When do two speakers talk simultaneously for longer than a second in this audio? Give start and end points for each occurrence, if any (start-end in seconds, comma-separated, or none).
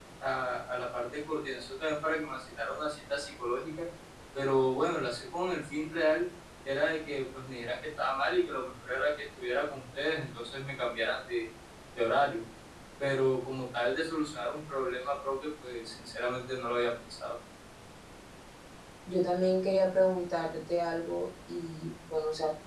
none